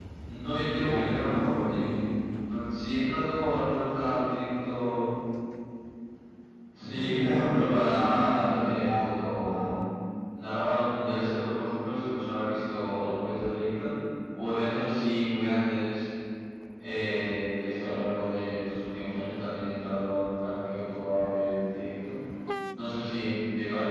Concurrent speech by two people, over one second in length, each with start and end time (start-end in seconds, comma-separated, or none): 0.7-1.9, 6.9-9.7